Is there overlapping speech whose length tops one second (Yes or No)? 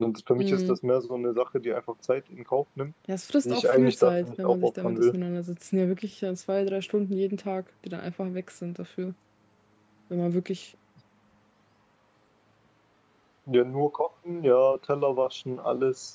Yes